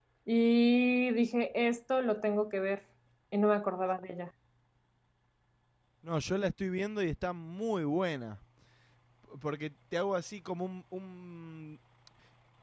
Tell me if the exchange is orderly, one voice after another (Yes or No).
Yes